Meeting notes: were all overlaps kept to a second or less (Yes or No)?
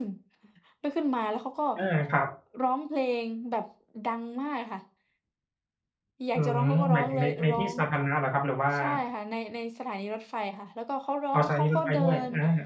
No